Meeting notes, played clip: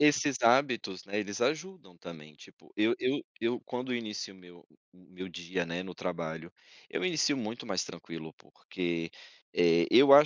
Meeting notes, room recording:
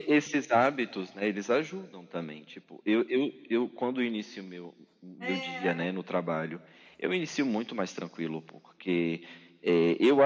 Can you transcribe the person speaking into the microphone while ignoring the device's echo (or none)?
é,